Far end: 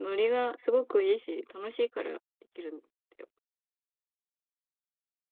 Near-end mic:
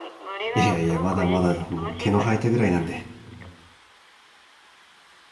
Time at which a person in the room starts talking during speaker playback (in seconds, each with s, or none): 0.6 s